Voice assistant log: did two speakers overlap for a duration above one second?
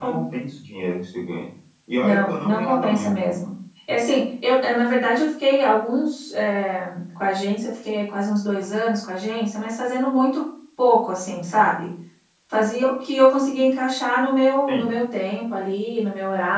Yes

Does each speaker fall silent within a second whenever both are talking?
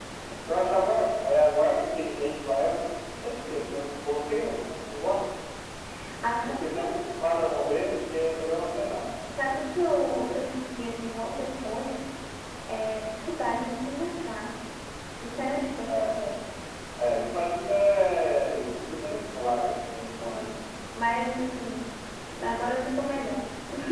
Yes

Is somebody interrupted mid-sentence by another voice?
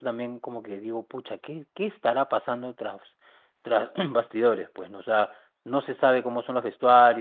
No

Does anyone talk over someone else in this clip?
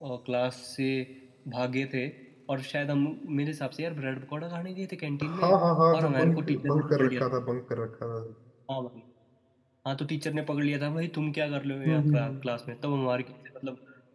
Yes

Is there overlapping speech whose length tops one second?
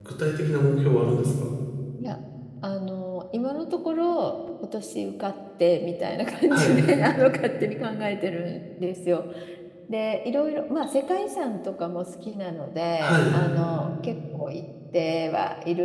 No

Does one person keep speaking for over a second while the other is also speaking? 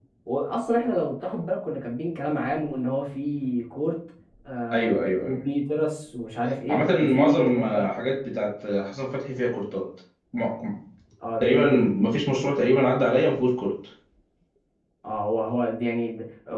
Yes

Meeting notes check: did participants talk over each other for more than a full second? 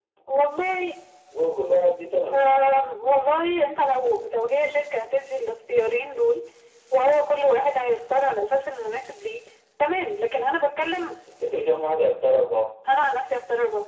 No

